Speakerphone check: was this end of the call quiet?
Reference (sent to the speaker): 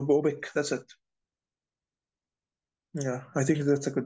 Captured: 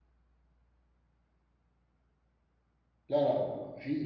No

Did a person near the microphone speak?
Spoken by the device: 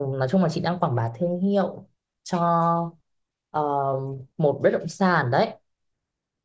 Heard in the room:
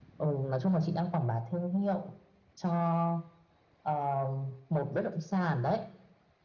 No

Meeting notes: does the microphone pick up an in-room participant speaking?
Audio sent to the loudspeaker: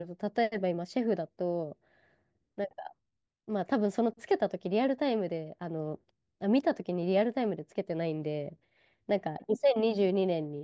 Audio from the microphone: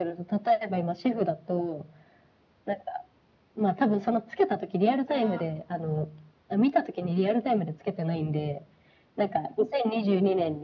Yes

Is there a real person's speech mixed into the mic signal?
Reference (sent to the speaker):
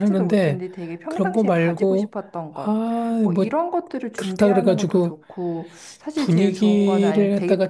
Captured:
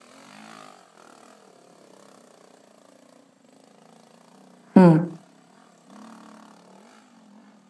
Yes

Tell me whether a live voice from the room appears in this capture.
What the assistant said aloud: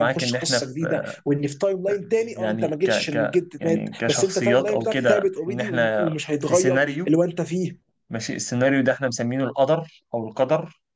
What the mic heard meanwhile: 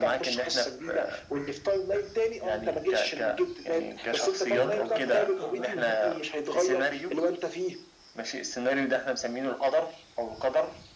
Yes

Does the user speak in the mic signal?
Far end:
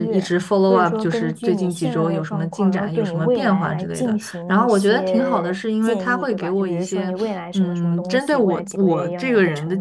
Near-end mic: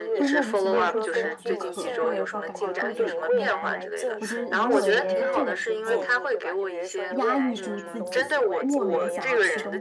Yes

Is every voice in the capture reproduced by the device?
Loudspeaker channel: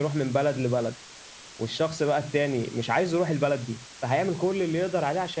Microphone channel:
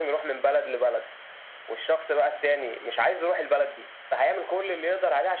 Yes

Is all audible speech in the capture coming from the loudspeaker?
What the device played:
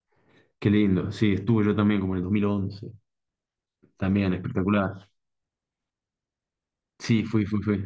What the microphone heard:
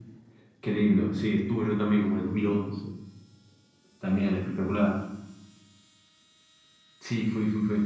Yes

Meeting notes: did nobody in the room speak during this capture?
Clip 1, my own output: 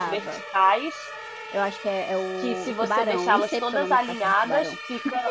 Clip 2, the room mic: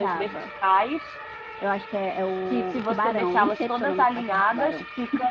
Yes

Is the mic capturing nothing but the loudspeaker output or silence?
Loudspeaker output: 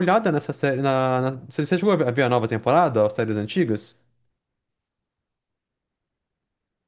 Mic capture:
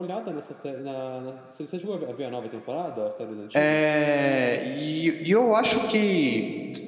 No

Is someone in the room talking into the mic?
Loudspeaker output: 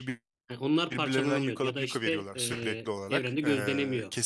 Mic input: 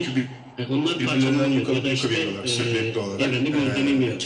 No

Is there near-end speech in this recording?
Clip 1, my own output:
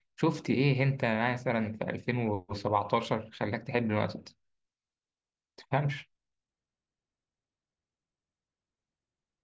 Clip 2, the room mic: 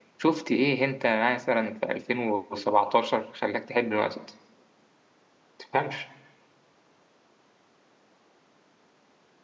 No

